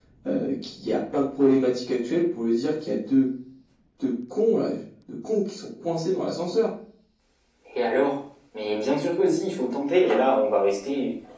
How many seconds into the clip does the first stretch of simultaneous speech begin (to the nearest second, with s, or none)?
none